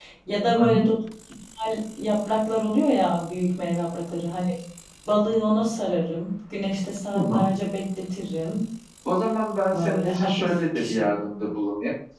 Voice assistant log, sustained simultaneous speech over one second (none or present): present